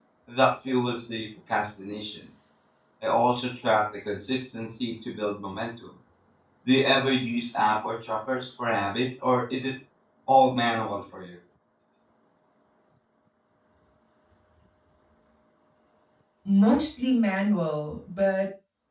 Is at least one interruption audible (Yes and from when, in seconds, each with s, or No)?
No